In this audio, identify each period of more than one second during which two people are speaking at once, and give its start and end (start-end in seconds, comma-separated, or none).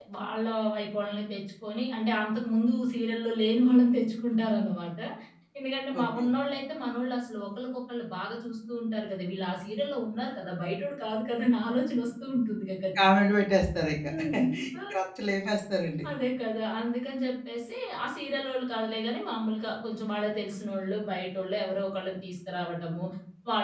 none